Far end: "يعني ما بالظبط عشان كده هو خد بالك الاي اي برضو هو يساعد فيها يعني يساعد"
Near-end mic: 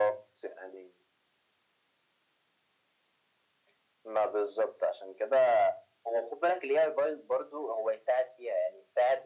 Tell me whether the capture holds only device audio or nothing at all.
Yes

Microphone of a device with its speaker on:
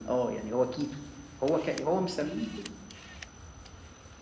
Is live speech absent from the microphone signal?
Yes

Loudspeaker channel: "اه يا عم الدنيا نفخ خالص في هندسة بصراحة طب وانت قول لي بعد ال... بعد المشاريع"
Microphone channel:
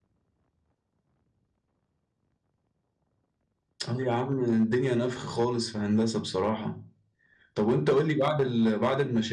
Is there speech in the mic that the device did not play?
No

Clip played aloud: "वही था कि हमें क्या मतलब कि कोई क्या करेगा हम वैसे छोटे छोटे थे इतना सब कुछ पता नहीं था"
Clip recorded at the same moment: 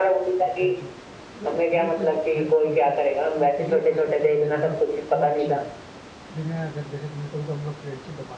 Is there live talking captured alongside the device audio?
Yes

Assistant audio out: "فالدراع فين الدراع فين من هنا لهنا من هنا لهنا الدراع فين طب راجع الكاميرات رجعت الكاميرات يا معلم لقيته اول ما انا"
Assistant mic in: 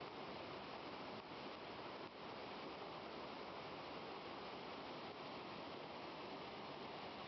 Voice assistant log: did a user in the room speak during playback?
No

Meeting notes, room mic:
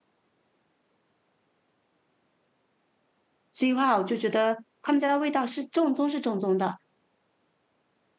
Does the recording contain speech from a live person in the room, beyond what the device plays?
Yes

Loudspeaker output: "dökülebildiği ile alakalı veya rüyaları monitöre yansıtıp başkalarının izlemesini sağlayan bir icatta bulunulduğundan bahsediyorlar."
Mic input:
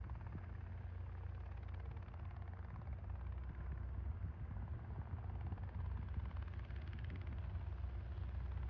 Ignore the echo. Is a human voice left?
No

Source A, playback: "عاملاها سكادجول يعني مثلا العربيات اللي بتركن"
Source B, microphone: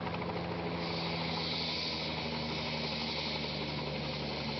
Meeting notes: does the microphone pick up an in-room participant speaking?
No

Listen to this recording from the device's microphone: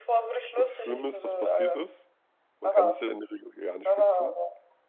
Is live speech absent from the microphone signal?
No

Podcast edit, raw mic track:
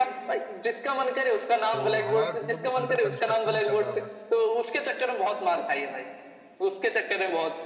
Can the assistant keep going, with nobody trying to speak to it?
No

